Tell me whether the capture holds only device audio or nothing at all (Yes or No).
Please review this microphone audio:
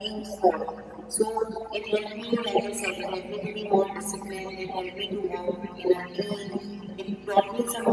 Yes